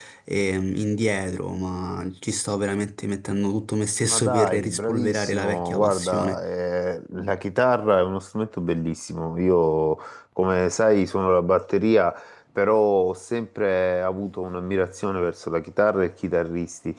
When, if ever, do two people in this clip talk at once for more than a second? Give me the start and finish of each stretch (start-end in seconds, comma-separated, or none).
4.1-6.4